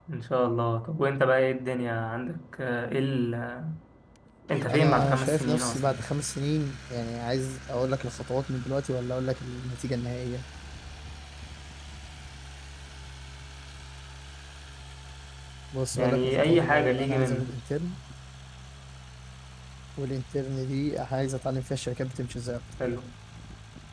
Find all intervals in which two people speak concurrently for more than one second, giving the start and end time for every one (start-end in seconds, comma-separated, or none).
4.7-5.9, 16.0-17.6